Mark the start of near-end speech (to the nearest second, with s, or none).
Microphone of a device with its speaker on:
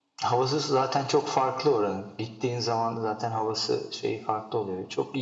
none